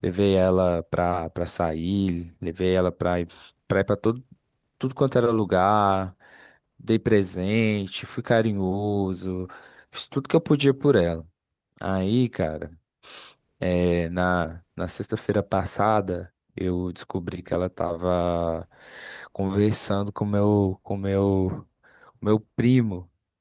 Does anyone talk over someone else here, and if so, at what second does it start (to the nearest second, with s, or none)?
none